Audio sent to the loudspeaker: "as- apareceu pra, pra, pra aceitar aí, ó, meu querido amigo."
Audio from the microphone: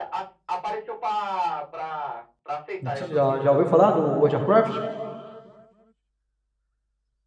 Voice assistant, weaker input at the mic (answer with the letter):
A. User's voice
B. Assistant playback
B